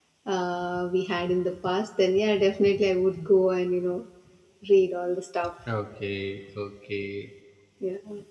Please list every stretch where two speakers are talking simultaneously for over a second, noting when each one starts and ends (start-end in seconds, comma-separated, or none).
none